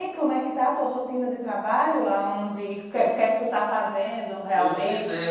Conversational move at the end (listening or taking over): taking over